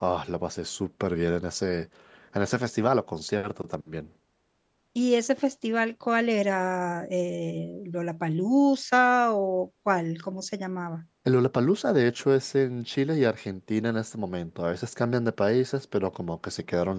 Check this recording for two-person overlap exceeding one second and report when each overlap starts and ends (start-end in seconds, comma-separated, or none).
none